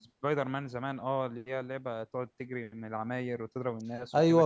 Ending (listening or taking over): taking over